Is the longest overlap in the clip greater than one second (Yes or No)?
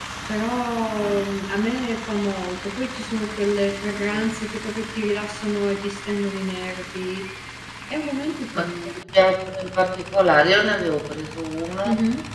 No